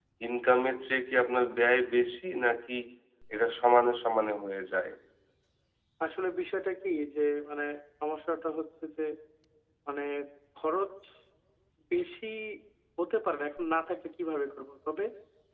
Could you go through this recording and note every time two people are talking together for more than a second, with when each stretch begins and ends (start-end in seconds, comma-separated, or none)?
none